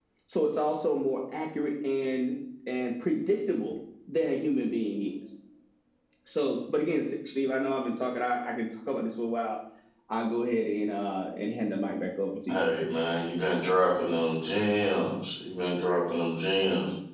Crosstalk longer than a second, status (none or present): none